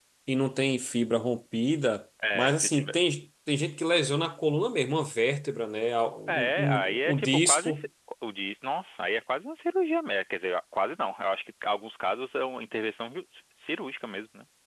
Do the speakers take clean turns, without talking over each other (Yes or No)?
No